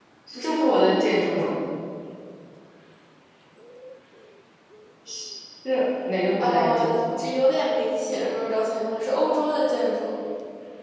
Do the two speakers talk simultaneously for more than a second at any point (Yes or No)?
Yes